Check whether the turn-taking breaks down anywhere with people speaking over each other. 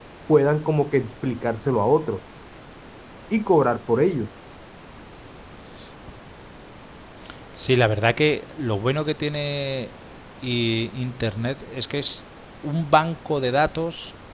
No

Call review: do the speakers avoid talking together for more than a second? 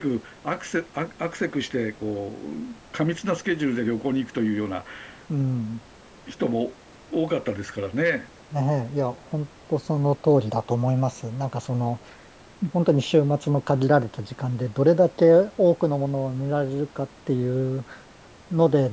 Yes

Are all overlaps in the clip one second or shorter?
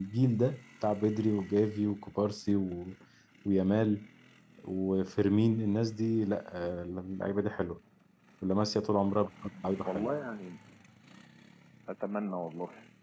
Yes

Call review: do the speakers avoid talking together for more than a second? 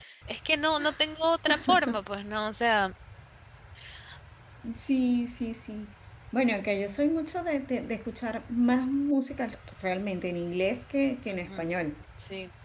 Yes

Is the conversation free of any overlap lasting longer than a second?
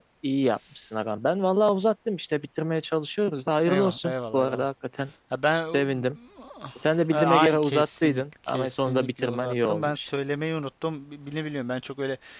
No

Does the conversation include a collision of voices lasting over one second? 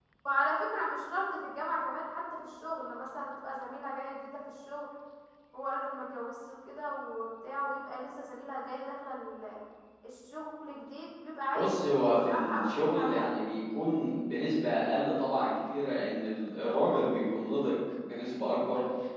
Yes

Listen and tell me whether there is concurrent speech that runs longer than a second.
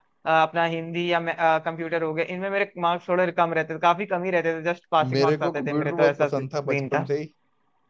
Yes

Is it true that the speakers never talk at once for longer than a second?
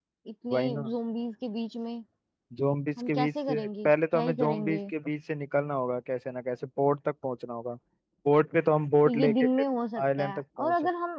No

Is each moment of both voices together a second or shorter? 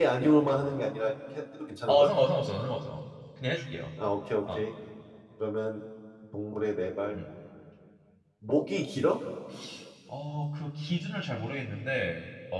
Yes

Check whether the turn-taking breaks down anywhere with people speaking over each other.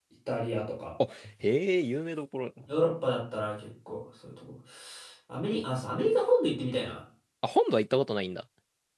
No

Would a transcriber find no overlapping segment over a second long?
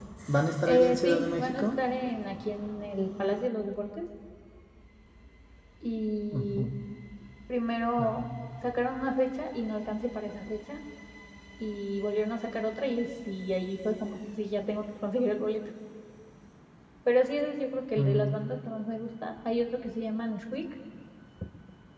No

